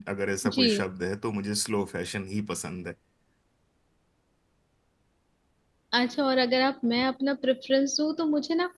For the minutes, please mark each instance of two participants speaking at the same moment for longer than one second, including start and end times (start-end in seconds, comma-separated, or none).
none